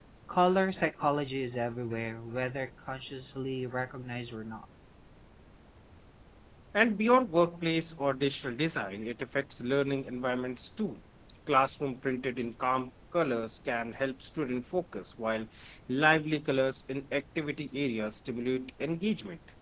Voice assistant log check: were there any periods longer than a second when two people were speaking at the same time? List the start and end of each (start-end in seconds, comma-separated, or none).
none